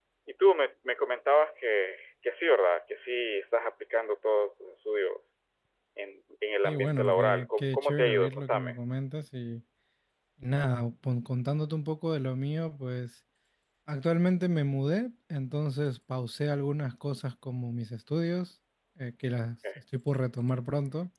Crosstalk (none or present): present